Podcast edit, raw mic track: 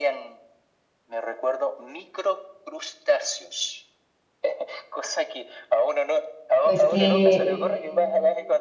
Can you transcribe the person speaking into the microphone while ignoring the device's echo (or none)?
Pues que,